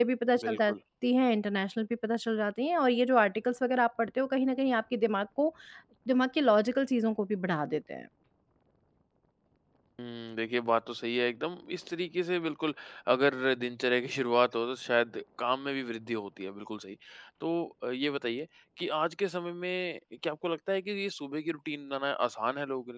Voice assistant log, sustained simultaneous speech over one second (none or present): none